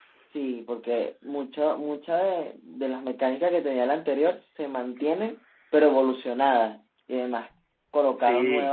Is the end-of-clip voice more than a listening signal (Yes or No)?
No